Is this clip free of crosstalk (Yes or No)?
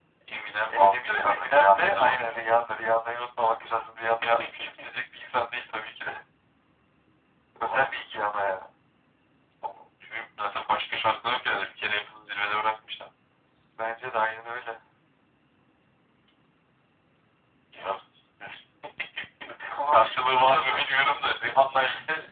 No